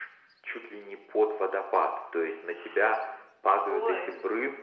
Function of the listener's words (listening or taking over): listening